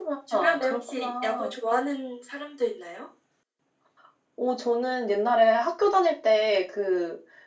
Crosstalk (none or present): present